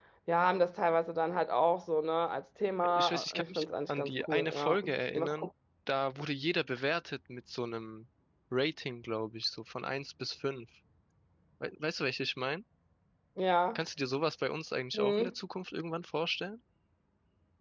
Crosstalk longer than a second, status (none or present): present